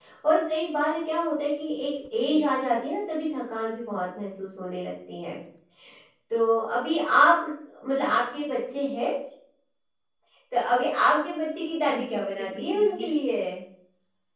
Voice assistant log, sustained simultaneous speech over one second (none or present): present